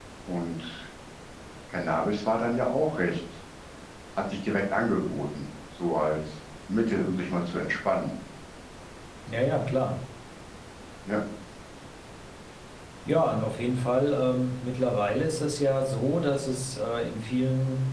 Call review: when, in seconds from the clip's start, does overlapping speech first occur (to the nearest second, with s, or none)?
none